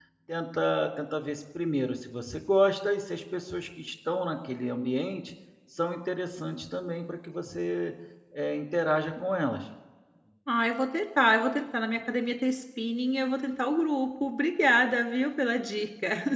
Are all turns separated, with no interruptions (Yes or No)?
Yes